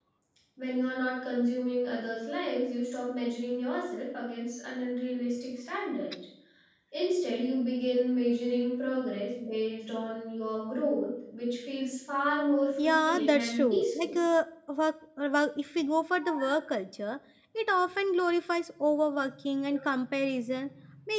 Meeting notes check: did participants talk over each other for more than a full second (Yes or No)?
Yes